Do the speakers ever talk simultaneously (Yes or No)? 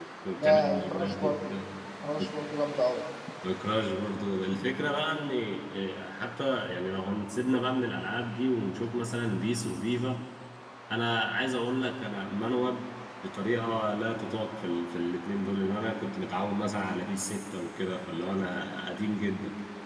Yes